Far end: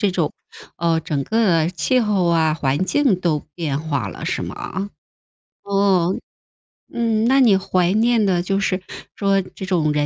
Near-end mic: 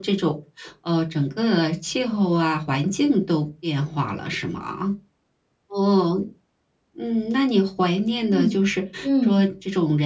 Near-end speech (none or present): present